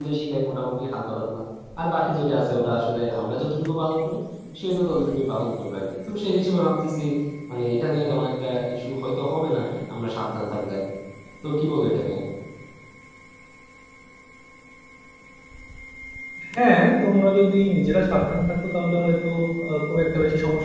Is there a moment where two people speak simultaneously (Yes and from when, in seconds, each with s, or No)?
No